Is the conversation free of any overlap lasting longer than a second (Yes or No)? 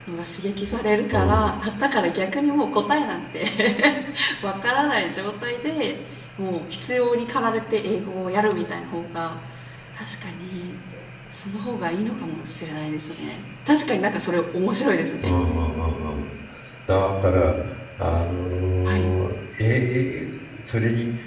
Yes